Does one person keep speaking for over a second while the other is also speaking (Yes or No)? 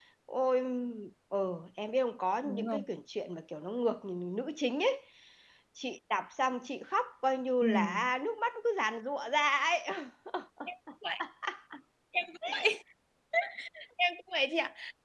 No